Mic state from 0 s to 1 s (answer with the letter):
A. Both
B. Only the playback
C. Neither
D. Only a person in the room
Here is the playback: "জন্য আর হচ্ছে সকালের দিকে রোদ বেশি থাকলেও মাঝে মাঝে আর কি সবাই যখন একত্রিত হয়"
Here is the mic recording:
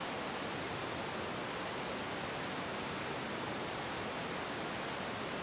C